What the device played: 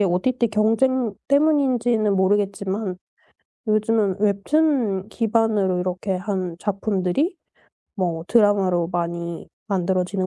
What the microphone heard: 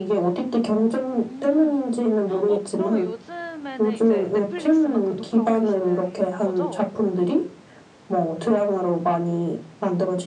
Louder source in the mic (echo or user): echo